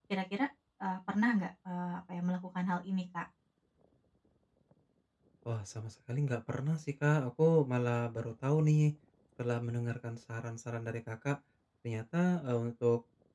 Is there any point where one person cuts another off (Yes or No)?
No